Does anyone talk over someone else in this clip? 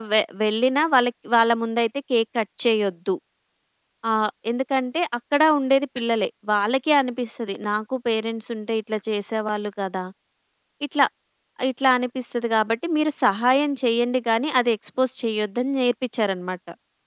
No

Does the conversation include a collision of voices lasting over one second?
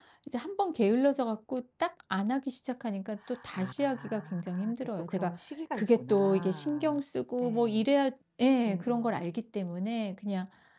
Yes, from 3.5 s

